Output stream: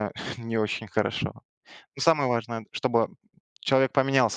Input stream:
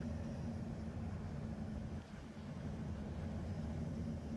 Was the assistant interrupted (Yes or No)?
No